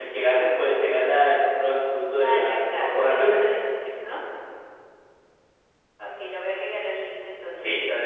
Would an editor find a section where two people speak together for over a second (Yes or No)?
Yes